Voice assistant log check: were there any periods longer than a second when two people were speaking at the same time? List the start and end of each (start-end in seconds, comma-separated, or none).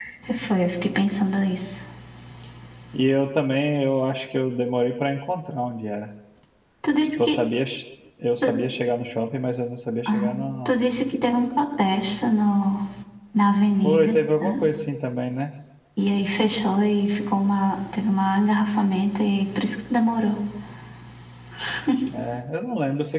none